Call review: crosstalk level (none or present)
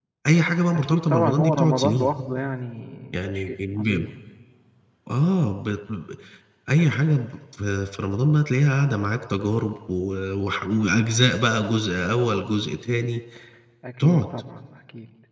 present